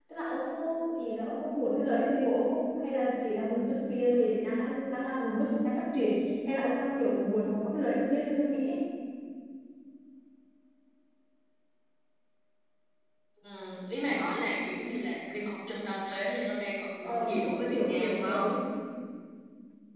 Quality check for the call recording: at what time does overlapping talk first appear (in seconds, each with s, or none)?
17.0 s